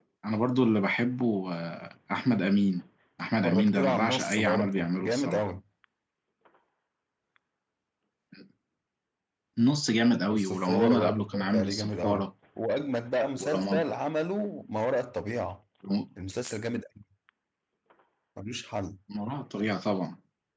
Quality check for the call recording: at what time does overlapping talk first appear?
3.4 s

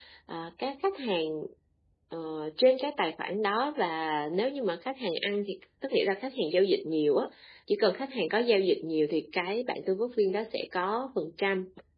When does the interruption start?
none

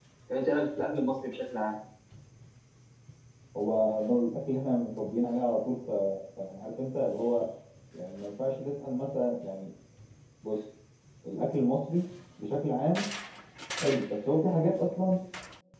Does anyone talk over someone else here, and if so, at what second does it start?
none

